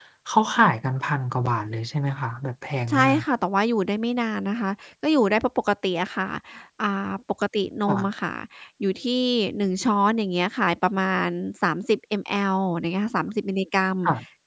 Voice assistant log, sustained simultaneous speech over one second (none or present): none